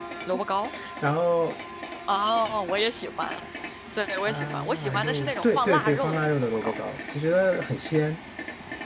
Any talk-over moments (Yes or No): Yes